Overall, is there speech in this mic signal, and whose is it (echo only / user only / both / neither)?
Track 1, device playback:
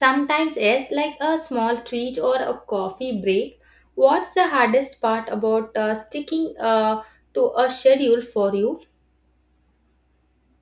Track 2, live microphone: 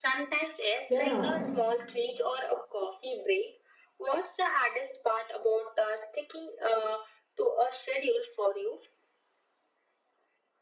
both